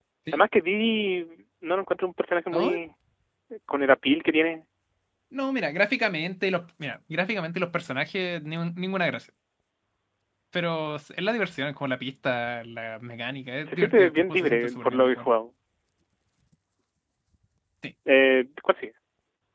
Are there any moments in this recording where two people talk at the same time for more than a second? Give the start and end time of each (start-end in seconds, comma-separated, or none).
13.7-15.3